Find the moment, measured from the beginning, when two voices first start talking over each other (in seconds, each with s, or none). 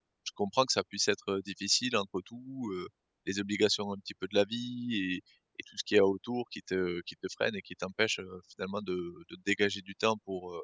none